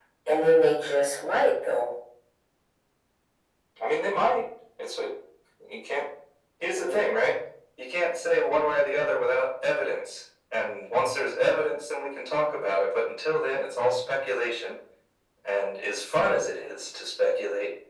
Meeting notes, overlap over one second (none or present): none